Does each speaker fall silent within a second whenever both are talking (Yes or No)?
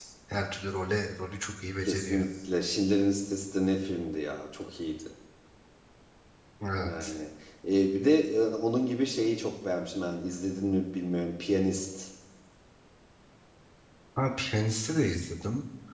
Yes